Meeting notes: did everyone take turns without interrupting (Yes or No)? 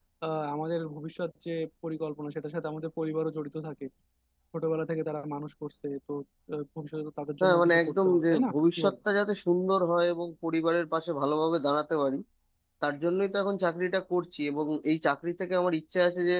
No